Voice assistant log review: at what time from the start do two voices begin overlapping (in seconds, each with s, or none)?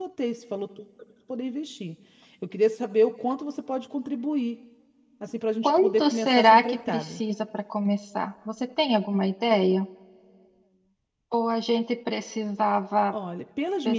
5.6 s